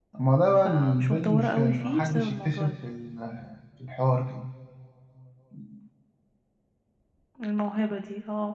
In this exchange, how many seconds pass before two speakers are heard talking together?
0.6 s

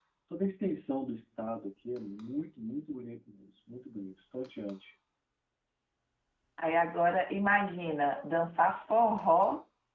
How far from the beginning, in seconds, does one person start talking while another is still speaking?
none

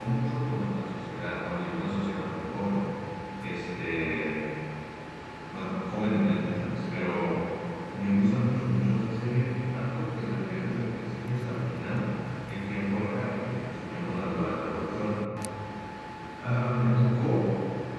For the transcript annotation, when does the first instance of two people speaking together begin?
none

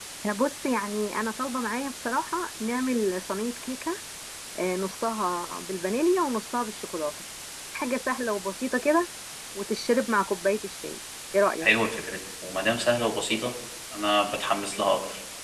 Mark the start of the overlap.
none

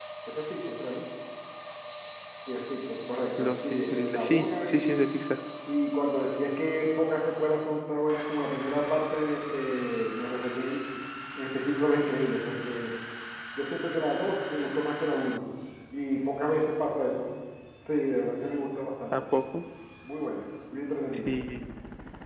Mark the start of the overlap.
3.4 s

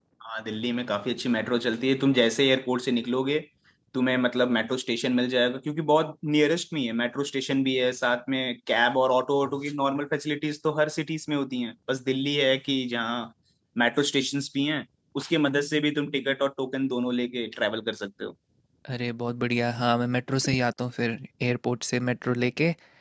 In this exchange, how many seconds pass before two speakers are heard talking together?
none

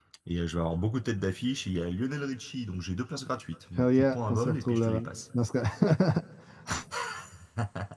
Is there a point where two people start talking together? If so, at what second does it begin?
3.8 s

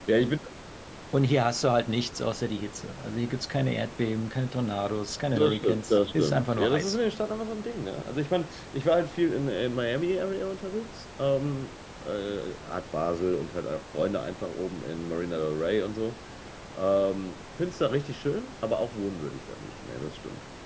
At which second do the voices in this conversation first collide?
5.3 s

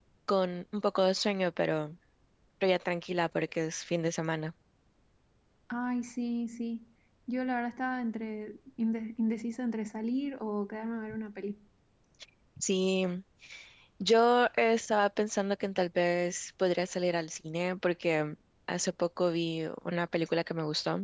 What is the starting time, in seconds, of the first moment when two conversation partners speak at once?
none

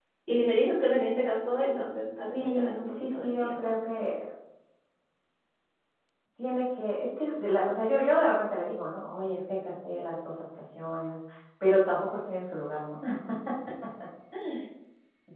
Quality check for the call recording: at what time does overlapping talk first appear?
2.3 s

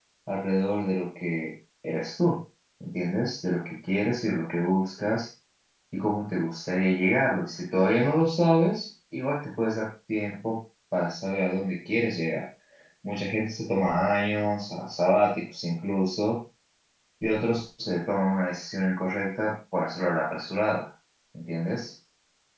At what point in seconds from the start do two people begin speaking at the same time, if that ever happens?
none

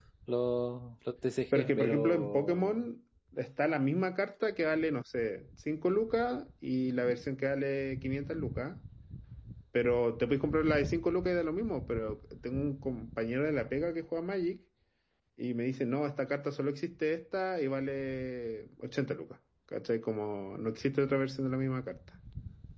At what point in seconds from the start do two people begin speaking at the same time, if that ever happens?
1.6 s

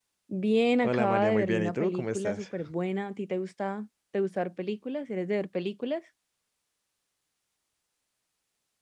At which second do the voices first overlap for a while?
0.8 s

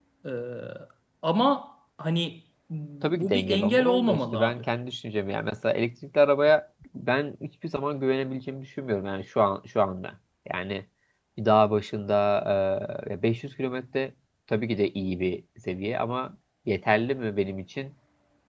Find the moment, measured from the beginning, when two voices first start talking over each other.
3.2 s

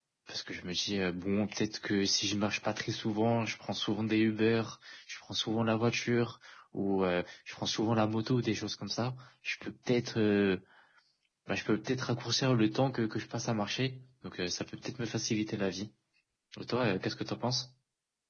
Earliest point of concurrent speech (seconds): none

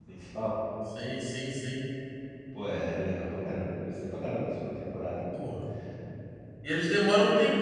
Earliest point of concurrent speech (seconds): none

